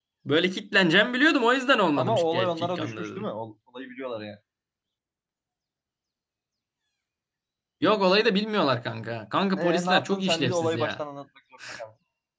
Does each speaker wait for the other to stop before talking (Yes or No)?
No